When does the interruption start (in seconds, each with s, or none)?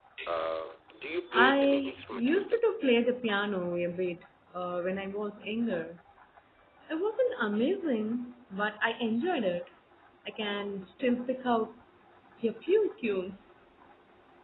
1.3 s